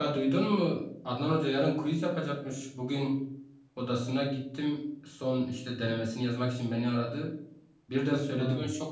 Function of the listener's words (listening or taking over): listening